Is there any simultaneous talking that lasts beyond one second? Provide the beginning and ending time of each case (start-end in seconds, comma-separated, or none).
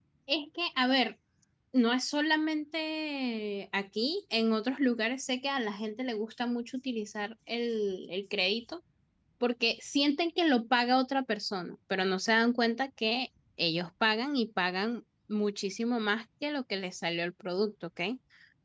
none